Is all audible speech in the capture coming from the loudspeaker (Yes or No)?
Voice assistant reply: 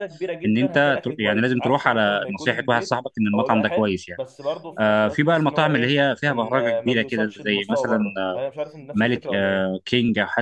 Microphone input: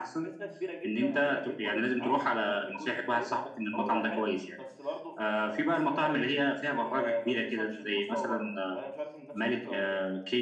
Yes